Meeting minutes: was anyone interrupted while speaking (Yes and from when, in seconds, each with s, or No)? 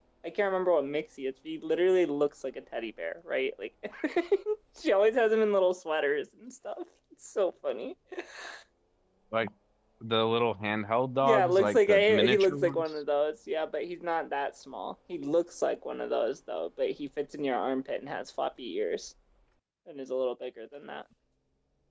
Yes, from 11.2 s